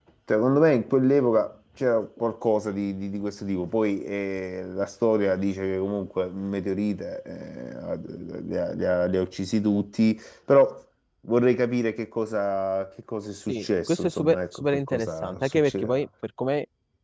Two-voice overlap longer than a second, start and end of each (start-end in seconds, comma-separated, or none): 13.5-16.0